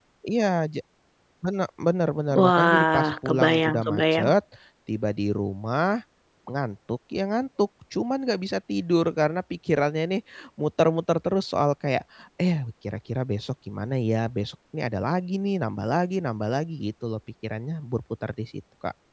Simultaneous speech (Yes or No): Yes